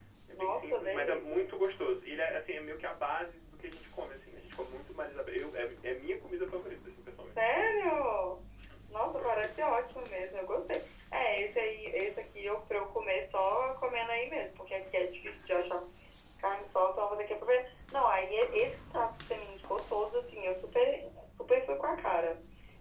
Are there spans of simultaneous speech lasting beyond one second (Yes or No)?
Yes